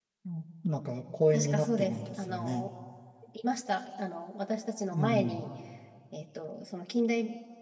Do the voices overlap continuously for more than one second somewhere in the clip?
Yes, from 1.3 s

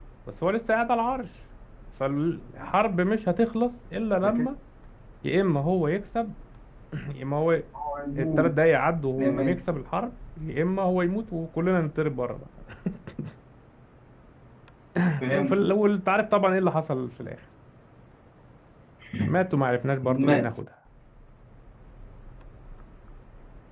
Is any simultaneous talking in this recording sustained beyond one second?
No

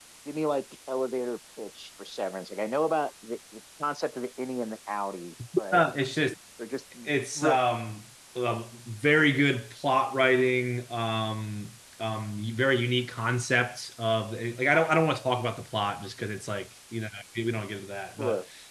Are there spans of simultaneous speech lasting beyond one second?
No

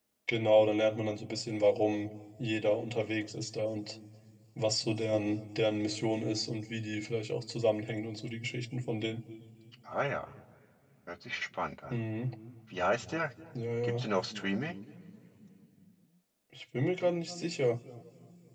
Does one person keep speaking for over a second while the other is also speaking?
No

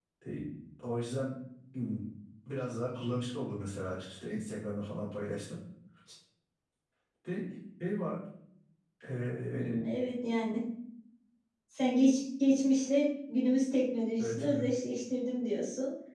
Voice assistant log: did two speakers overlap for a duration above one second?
No

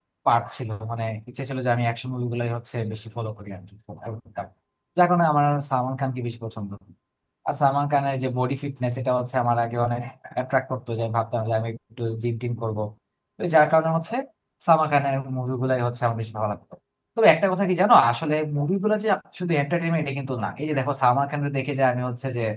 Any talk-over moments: No

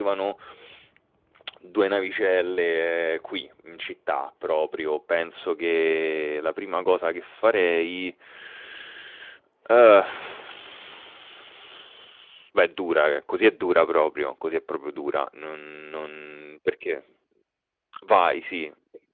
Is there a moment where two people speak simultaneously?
No

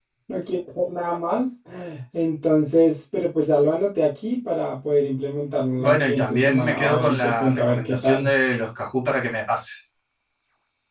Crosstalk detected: Yes, from 5.8 s

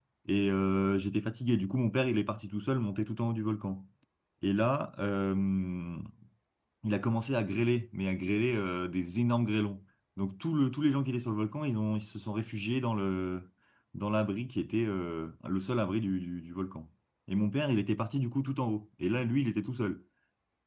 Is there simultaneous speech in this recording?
No

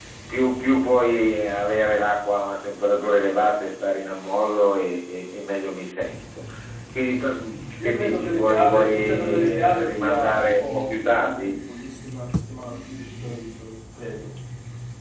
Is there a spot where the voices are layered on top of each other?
Yes, from 7.8 s

